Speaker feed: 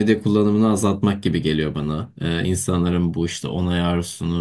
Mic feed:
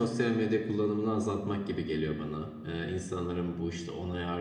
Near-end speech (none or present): none